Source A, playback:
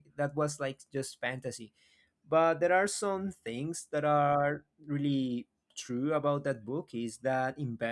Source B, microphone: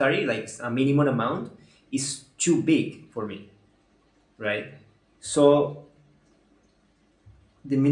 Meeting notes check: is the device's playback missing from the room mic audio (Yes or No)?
Yes